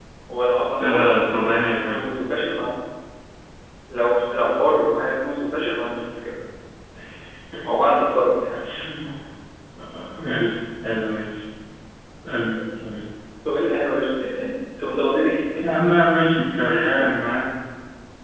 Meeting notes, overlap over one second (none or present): present